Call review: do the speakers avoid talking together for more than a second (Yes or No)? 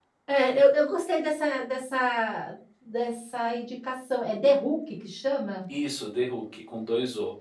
Yes